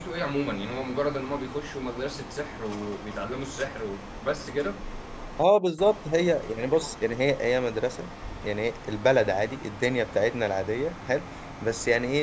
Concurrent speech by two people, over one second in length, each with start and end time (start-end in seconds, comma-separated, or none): none